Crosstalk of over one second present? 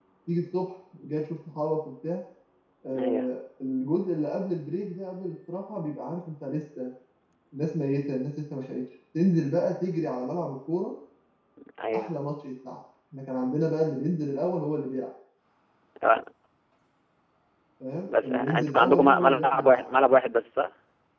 Yes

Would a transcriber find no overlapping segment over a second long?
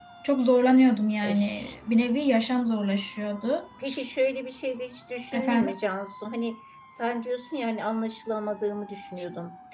Yes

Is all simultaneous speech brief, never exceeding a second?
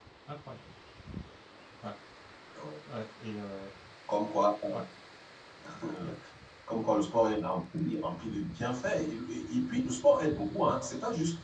Yes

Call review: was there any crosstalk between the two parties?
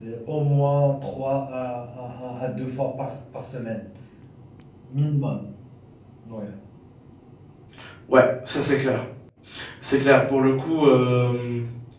No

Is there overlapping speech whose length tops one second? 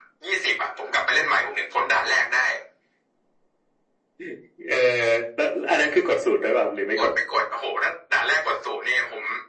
No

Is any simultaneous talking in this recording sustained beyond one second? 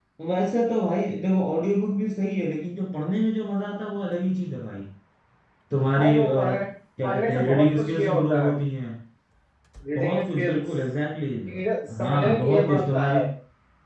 Yes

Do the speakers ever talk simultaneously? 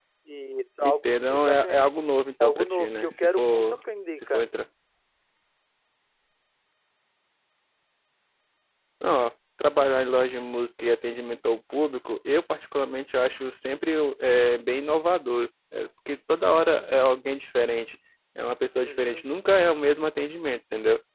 Yes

